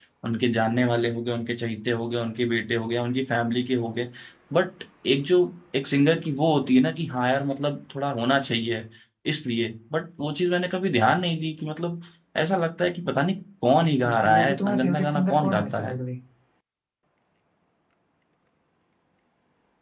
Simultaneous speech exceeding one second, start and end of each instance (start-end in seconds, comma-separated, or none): 13.8-16.0